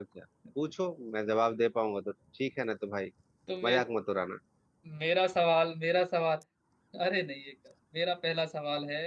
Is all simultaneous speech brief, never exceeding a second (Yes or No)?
Yes